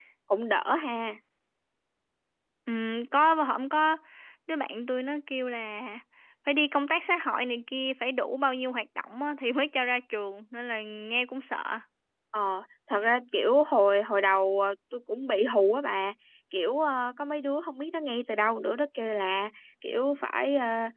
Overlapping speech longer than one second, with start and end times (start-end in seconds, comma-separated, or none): none